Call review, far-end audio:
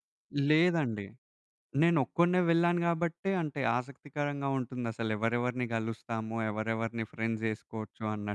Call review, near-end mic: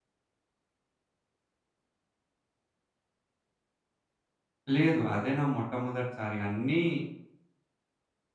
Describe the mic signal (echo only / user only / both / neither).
user only